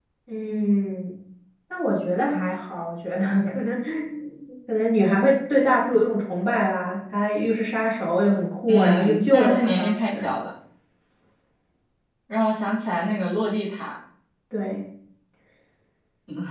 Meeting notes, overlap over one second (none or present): present